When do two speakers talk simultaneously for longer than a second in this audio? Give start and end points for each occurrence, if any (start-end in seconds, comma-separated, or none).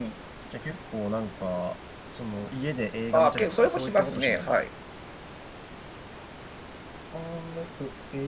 3.1-4.6